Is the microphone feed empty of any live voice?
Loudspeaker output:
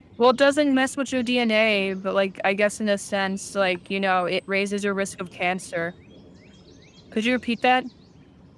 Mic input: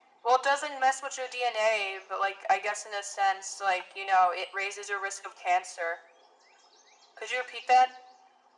Yes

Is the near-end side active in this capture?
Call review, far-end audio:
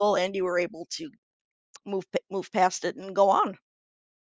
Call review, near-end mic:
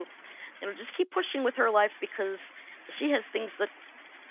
Yes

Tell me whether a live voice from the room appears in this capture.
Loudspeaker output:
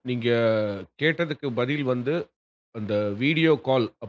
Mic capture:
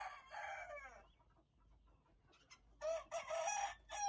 No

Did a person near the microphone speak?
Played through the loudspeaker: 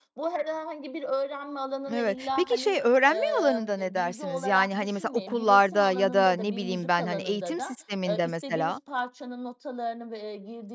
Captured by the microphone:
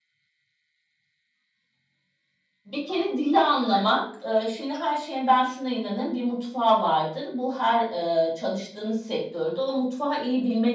Yes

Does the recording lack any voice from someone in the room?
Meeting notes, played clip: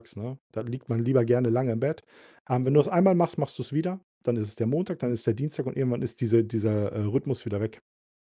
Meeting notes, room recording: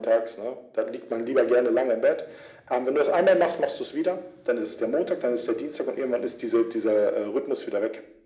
Yes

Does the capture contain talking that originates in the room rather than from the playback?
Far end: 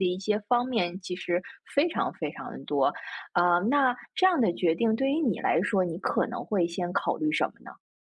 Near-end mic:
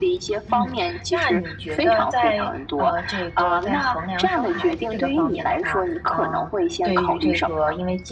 Yes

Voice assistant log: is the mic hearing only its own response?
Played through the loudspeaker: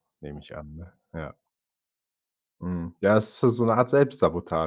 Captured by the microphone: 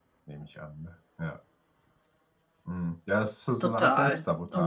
No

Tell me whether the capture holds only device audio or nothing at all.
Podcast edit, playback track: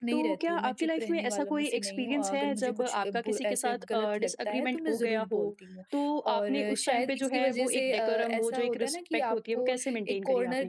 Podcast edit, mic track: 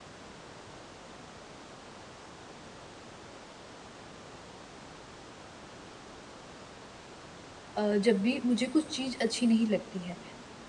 No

